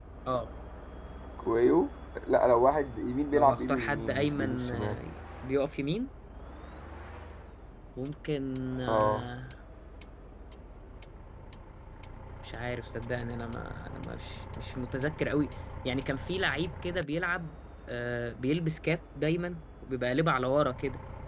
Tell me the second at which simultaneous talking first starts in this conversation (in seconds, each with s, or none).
3.3 s